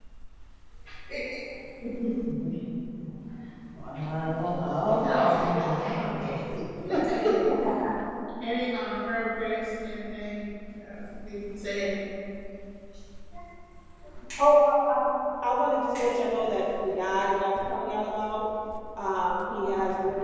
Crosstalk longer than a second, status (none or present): present